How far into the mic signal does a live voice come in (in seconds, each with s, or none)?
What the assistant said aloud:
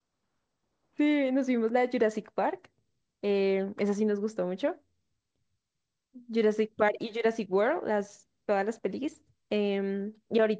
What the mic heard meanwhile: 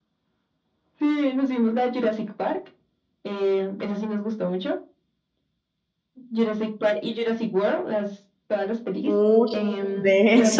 9.1 s